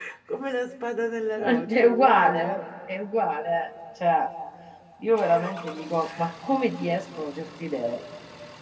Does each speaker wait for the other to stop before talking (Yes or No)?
No